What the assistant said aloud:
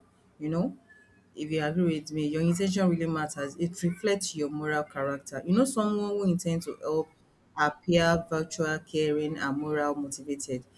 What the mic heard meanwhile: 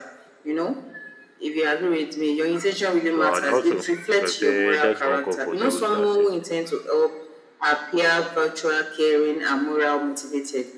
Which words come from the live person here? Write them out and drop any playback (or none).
So and also I can say that's uncomfortable to accept.